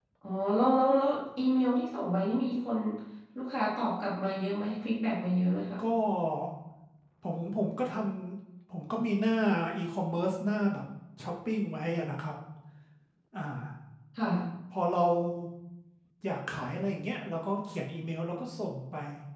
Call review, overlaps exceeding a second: none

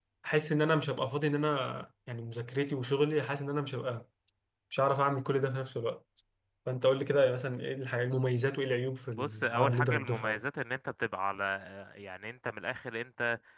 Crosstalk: present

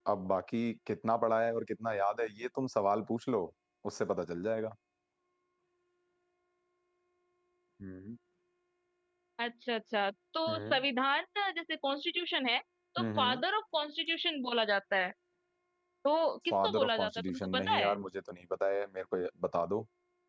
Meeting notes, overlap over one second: present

